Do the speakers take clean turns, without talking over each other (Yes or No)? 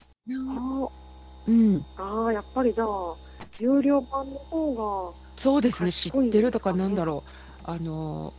No